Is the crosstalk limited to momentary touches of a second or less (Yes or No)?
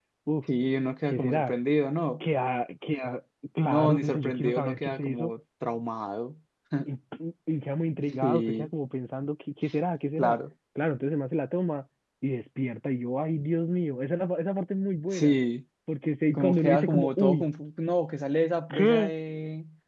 No